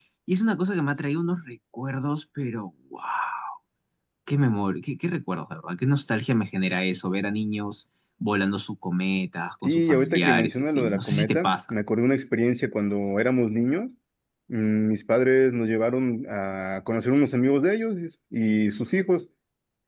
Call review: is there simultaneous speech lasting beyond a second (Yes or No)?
Yes